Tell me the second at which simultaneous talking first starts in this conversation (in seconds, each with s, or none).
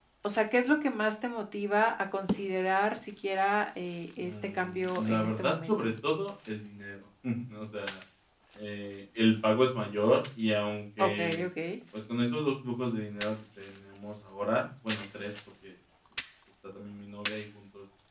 4.2 s